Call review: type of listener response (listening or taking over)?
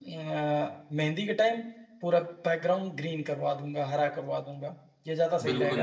taking over